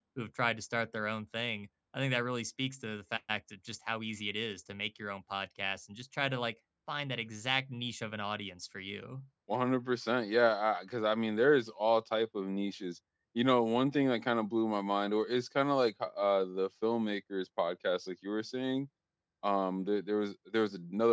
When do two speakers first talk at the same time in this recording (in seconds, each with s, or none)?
none